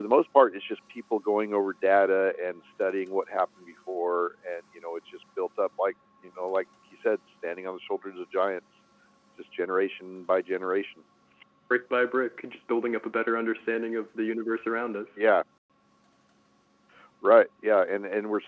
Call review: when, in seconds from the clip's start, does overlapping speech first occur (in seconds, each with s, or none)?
none